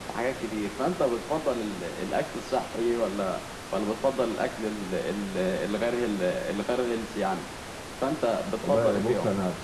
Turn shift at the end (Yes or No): Yes